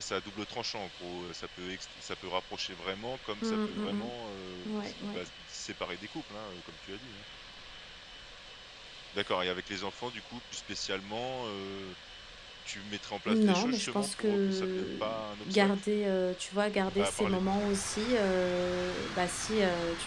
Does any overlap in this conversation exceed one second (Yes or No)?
Yes